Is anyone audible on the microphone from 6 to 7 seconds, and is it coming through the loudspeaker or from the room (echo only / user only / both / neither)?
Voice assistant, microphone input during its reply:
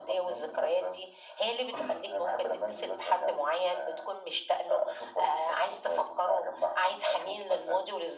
echo only